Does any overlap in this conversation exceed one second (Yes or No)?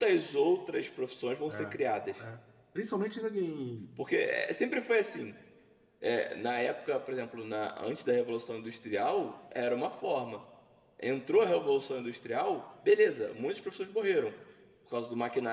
No